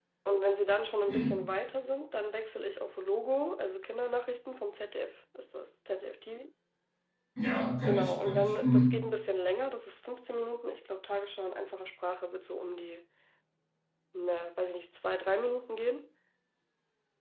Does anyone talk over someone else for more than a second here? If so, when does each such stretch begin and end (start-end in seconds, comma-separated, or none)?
7.9-9.1